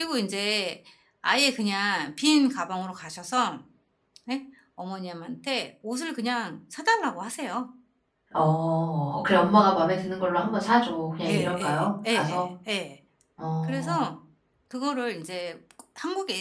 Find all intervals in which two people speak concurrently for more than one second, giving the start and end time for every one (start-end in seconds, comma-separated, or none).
11.2-12.4